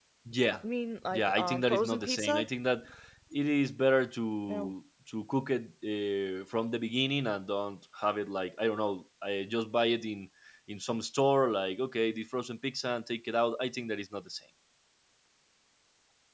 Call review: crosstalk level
present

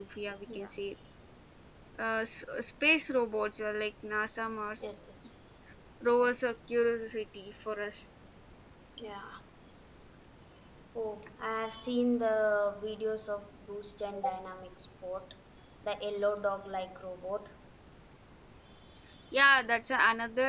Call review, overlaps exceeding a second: none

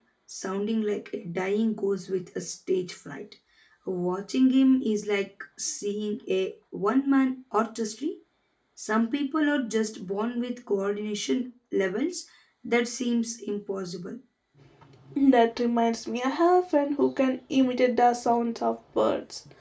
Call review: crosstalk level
none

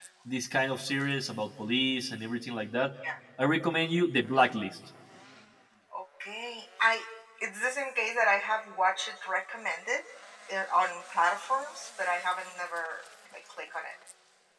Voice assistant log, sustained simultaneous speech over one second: none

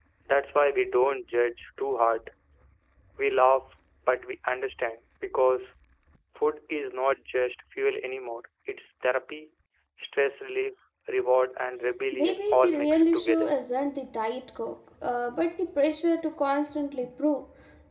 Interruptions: present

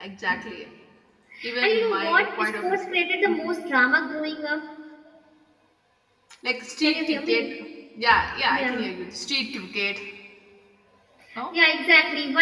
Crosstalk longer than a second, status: present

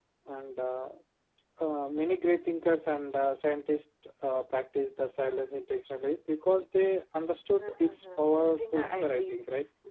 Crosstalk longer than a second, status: present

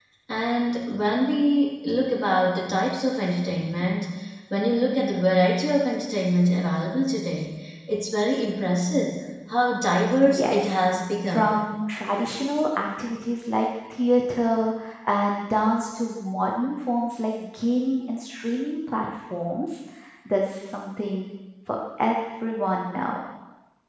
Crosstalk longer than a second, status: none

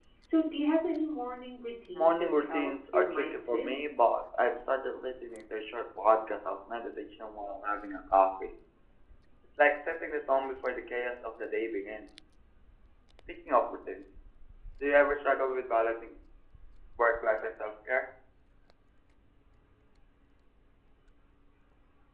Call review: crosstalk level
present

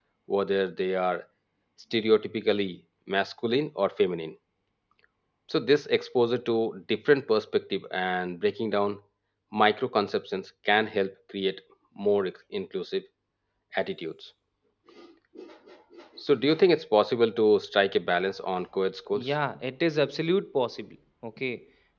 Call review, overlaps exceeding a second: none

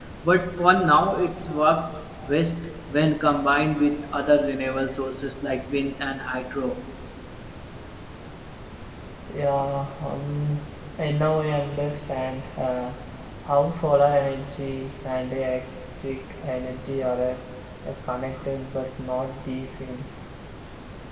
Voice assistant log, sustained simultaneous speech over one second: none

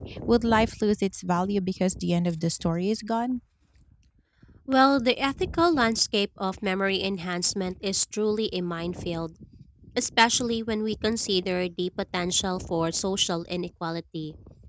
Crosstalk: none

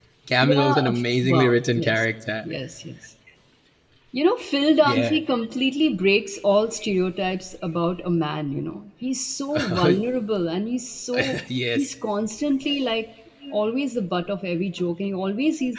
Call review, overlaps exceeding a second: present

